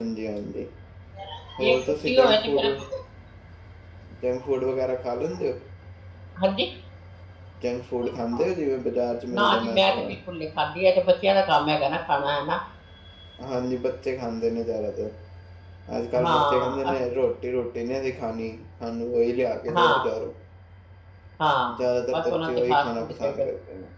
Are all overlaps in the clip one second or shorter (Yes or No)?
No